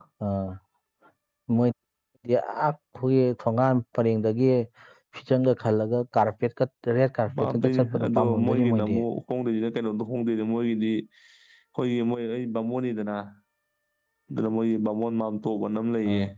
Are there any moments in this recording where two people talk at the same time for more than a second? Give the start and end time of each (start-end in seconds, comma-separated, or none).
7.4-9.0